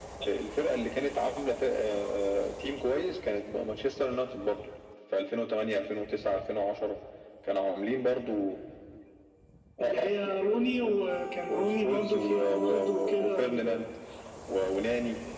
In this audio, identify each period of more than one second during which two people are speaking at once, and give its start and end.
11.5-13.8

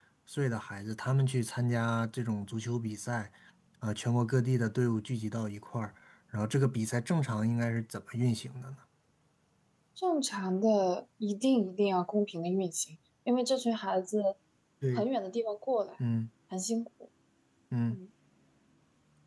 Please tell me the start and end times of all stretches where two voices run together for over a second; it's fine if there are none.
none

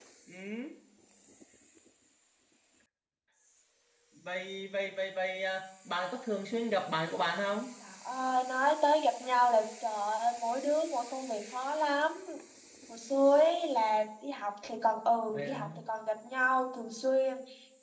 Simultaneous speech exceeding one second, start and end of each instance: none

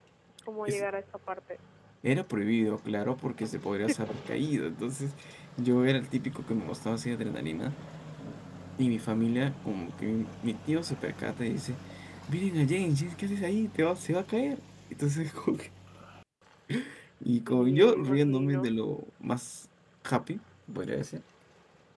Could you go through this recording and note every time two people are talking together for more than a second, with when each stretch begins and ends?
17.5-18.7

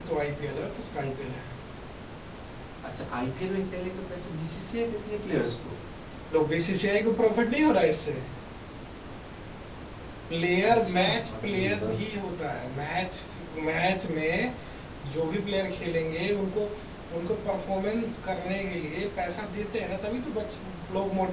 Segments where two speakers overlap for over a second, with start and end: 10.7-11.9

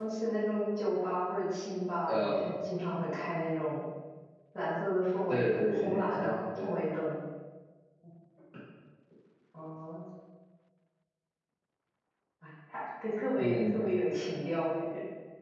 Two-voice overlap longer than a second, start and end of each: 5.3-6.7

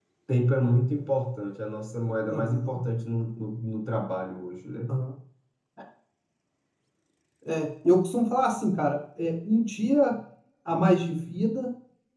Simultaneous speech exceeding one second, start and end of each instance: none

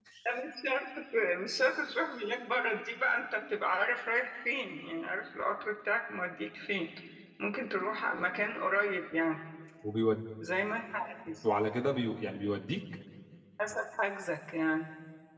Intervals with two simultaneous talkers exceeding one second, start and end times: none

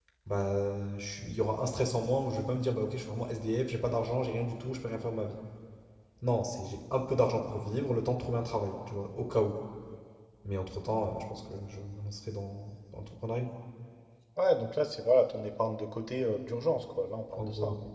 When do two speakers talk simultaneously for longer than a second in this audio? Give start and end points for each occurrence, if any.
none

